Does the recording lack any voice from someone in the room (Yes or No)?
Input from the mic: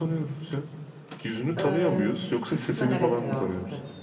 No